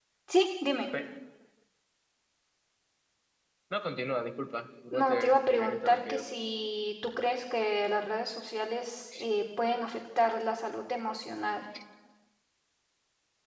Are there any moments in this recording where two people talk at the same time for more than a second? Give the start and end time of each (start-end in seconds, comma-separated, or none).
4.9-6.2